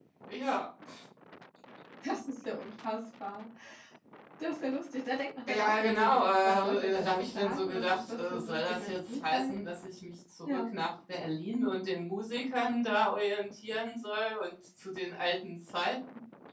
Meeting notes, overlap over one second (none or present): present